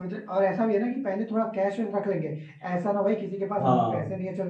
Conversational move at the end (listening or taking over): listening